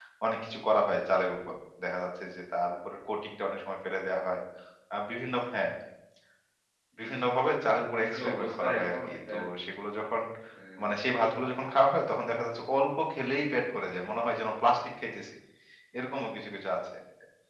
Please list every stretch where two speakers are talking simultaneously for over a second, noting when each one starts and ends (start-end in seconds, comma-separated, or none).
8.1-9.4